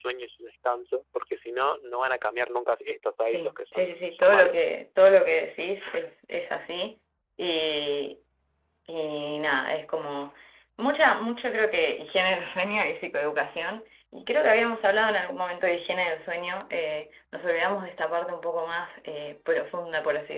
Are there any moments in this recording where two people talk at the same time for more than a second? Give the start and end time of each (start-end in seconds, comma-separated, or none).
3.2-4.6